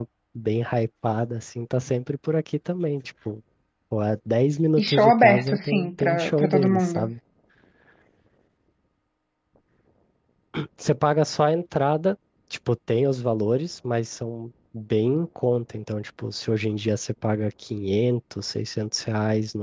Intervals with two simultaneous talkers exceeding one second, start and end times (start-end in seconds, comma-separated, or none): 4.8-7.1